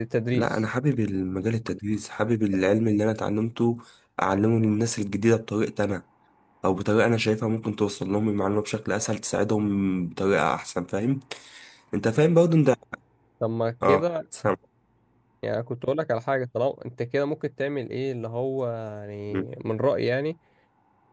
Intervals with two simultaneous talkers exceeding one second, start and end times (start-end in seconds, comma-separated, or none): none